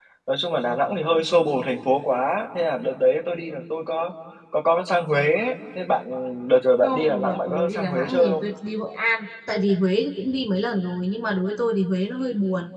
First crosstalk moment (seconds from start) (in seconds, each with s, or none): 6.8 s